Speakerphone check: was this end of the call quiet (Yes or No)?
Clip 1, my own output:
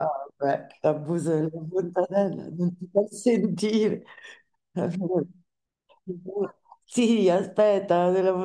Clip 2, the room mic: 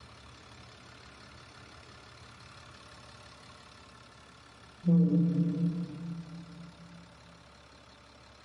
No